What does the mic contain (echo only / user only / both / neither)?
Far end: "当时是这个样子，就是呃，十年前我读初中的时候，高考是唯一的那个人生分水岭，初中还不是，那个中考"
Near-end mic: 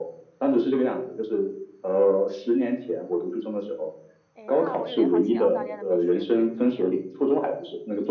both